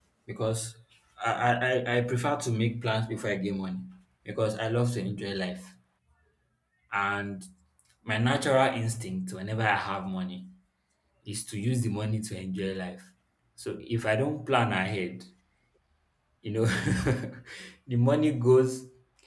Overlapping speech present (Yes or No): No